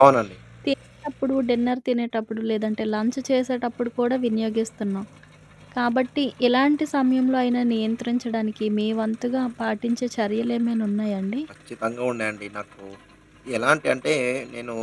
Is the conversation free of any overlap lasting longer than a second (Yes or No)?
Yes